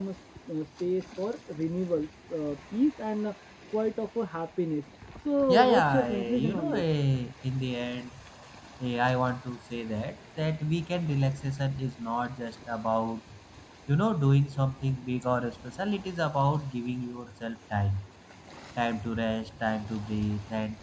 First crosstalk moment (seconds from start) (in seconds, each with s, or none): 5.5 s